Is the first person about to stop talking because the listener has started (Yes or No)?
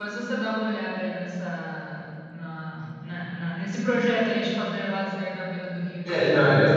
Yes